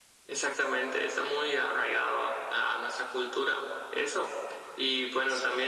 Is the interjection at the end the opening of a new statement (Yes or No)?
No